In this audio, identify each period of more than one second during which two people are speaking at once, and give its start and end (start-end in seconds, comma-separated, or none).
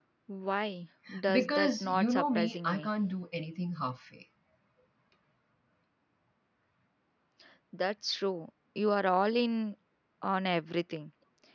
1.3-2.9